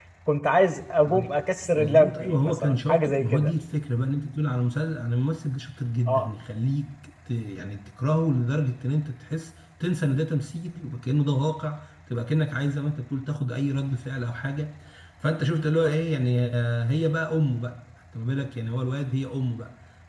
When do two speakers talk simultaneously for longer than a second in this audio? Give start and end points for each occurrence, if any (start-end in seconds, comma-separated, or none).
1.7-3.5